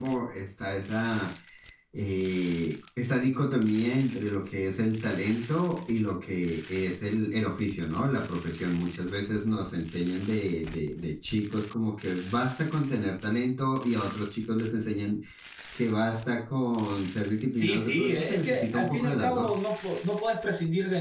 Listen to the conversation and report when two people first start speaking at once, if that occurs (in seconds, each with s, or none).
17.6 s